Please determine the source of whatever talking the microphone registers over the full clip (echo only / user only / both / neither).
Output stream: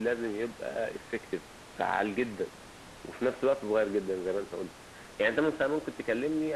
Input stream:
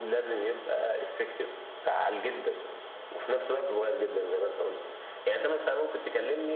echo only